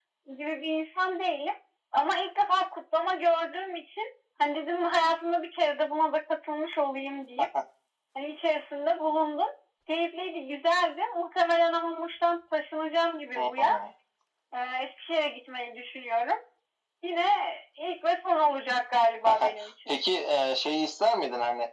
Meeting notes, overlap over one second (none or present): none